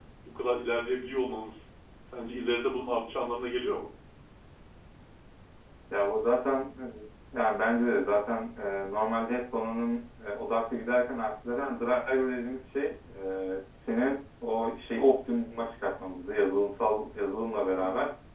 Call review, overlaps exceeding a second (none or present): none